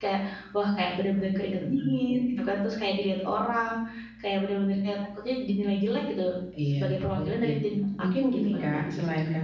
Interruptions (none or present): present